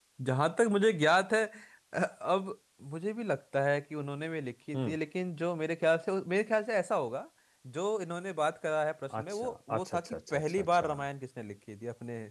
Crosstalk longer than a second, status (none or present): present